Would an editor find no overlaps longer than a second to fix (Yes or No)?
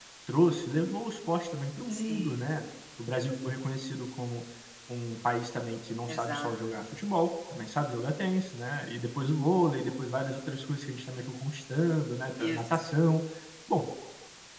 Yes